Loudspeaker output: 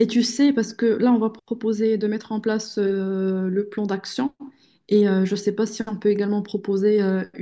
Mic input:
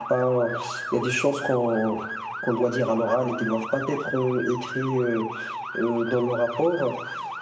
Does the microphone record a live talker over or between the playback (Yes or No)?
Yes